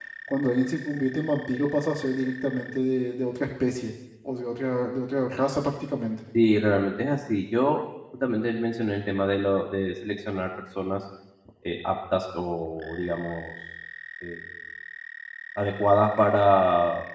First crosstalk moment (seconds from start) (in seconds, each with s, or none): none